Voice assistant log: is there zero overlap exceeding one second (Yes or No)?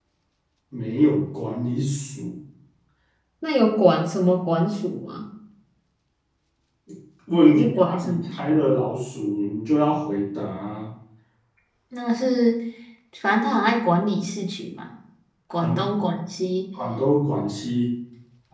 No